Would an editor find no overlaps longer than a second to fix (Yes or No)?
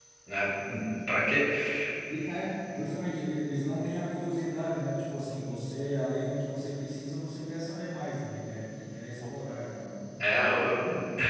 Yes